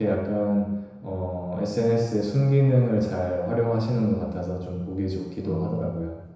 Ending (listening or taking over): taking over